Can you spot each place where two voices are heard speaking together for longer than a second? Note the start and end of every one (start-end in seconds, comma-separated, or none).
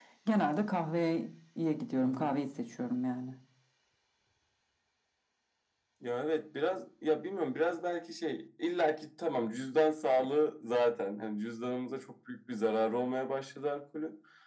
none